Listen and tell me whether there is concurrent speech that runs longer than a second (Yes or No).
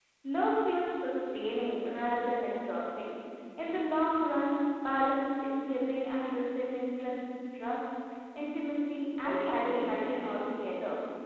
Yes